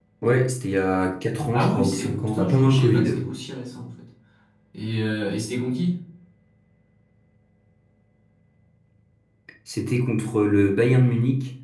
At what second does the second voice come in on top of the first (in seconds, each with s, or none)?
1.5 s